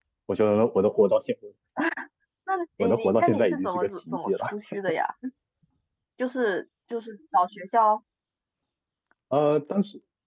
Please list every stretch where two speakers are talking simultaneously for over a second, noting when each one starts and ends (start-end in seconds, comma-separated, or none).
2.8-4.5